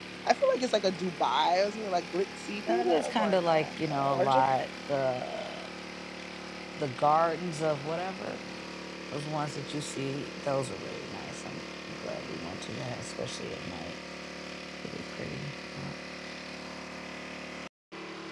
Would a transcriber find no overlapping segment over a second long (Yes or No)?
No